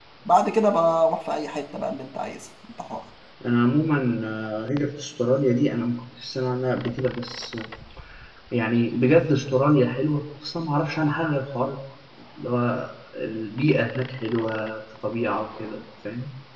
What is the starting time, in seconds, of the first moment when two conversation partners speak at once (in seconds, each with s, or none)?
none